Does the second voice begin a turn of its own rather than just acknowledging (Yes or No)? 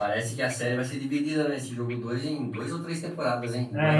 Yes